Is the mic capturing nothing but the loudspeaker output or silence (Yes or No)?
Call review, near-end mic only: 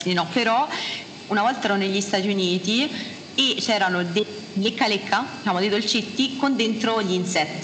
Yes